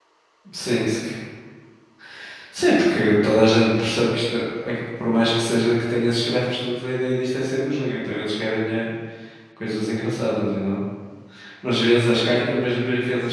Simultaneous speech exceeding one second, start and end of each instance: none

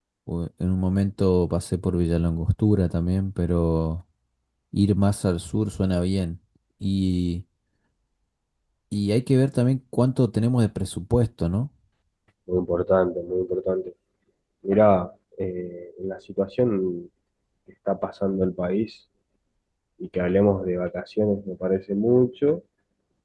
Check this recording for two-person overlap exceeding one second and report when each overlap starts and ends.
none

